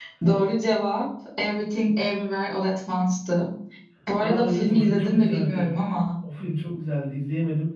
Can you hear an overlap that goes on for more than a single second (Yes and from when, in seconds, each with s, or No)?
Yes, from 4.2 s